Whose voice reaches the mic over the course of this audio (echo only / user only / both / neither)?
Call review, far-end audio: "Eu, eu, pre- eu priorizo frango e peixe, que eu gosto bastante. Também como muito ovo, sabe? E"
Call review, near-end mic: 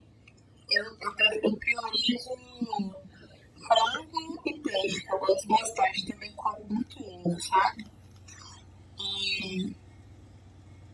echo only